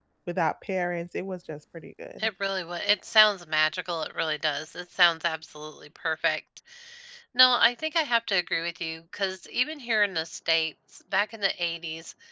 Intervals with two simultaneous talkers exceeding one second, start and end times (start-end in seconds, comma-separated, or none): none